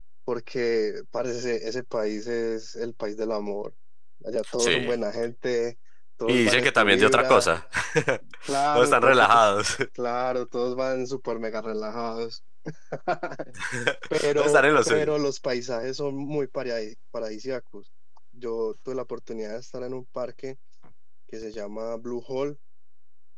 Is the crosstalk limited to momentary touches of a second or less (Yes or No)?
No